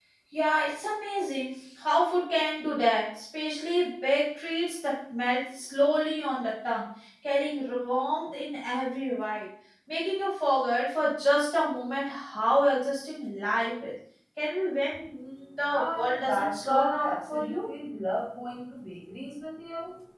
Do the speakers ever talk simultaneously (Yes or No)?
Yes